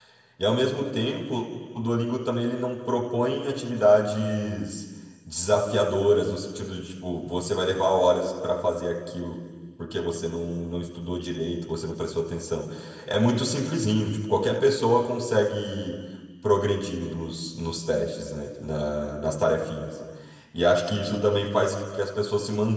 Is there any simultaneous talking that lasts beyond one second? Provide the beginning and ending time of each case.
none

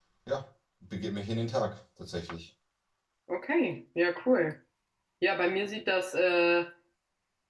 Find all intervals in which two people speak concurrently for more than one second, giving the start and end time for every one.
none

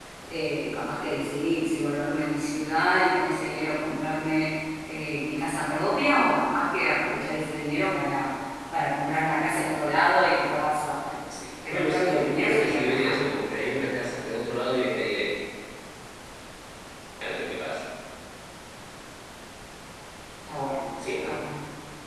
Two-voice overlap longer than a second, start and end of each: 11.7-13.9

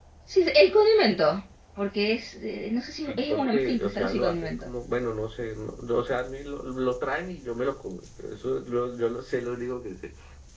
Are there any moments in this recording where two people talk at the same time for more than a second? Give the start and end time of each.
3.1-4.7

